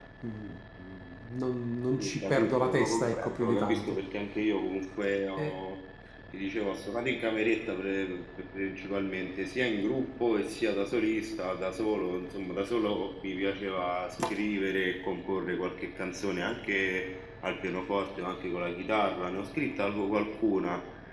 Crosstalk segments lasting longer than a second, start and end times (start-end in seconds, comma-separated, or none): 2.0-4.0